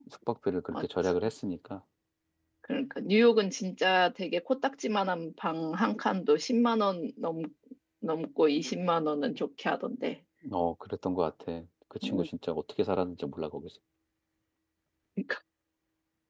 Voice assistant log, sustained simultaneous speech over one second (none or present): none